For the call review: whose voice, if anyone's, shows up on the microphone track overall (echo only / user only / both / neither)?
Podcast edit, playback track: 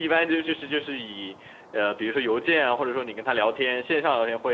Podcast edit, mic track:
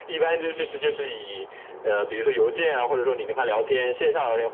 echo only